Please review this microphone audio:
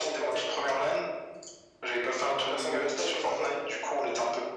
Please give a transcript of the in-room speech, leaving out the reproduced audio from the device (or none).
none